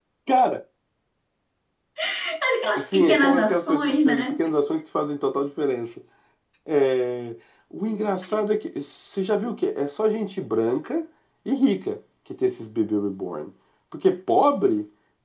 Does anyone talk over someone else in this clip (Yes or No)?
Yes